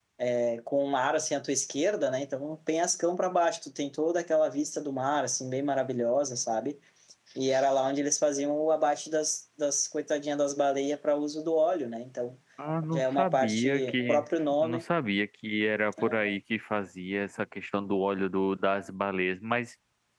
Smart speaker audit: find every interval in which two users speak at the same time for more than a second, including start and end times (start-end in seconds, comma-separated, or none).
12.9-14.2